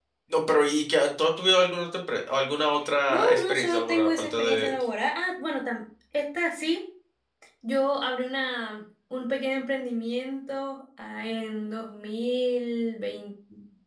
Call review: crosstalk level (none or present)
present